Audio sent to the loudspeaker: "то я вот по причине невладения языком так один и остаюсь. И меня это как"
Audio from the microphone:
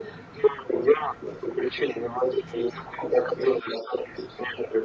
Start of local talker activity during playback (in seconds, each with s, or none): none